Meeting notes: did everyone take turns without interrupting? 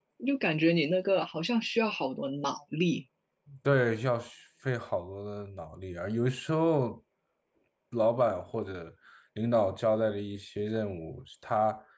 Yes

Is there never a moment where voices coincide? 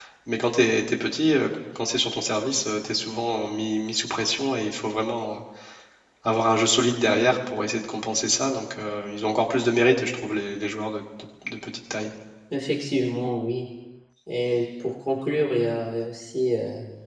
Yes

